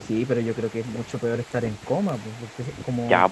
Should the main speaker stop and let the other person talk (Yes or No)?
Yes